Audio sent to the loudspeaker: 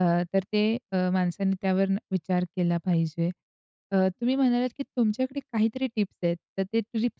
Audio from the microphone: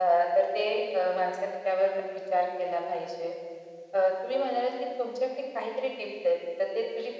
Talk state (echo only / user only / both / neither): echo only